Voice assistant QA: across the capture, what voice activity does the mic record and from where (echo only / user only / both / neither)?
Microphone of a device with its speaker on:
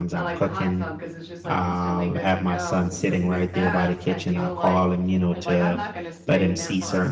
both